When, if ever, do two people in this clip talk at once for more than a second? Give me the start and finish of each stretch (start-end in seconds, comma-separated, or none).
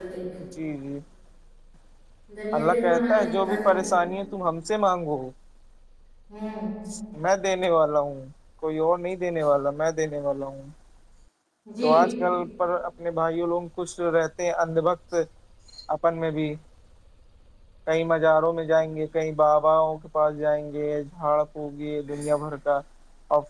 2.6-3.9